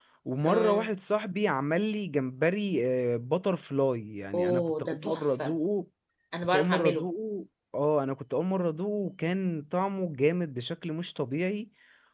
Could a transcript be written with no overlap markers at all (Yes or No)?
No